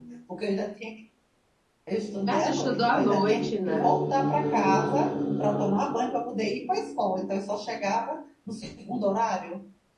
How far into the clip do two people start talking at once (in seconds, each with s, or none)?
2.3 s